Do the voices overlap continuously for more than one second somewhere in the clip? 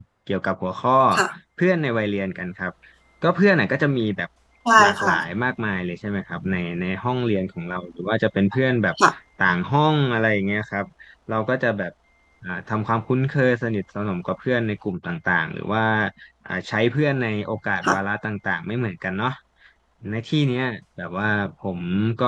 No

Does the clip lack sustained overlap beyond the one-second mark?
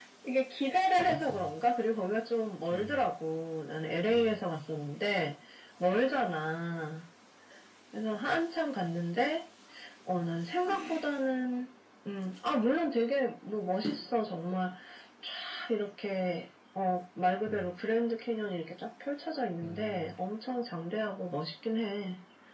Yes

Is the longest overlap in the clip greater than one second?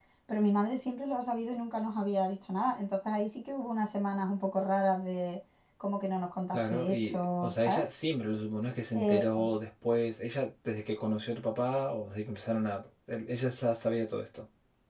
Yes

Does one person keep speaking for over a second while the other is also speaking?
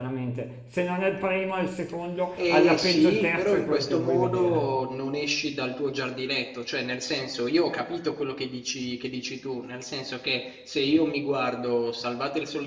Yes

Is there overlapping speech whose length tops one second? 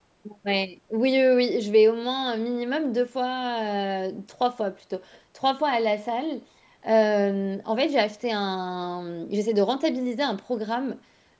No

